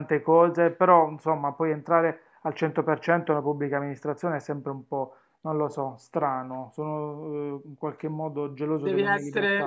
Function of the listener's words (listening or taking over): taking over